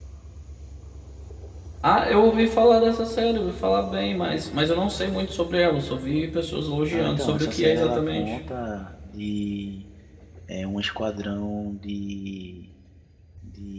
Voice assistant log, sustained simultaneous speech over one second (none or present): present